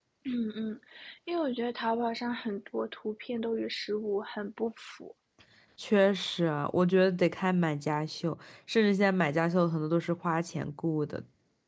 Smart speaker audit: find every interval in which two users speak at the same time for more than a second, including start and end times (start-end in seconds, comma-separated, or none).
none